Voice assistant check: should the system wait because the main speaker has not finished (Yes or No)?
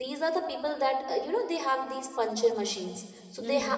Yes